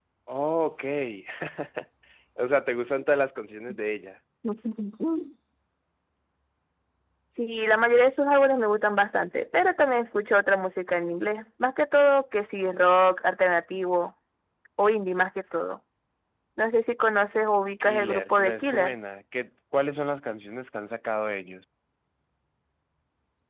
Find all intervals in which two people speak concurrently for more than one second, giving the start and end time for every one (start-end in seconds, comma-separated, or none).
17.8-19.0